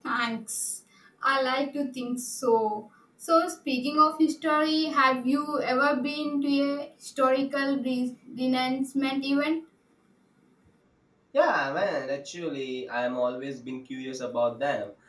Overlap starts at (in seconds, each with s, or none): none